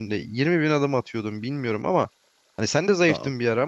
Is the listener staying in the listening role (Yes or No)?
Yes